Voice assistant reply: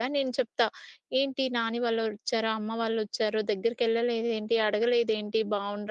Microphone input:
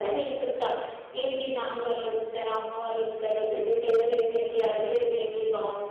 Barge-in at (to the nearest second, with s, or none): none